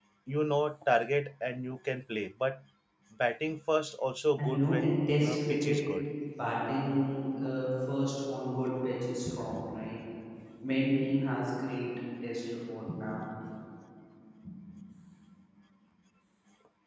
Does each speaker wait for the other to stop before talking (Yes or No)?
No